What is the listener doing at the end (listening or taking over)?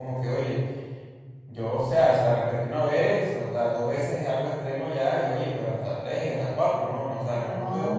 taking over